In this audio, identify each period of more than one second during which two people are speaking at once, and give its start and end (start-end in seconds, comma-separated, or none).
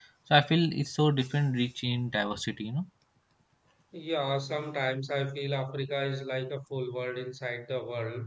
none